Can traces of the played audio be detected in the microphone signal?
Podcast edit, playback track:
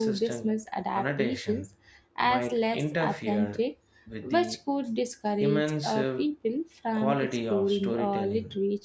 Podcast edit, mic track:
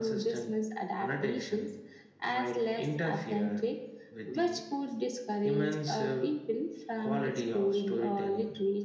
Yes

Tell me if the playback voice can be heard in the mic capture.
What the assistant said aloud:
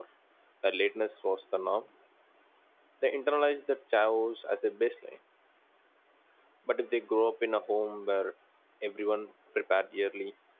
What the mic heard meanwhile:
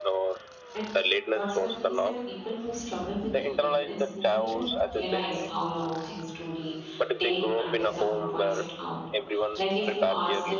Yes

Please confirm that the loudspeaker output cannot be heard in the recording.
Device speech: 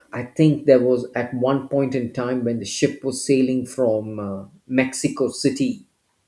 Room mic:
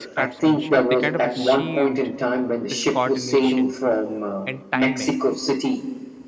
No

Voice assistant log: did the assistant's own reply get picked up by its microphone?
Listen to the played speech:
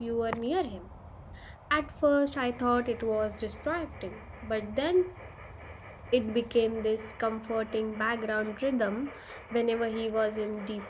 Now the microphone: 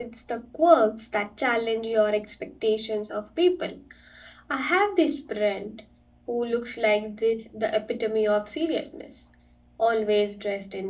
No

